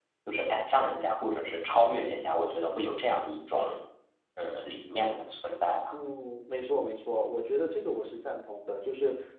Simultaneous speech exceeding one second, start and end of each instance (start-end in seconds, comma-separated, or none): none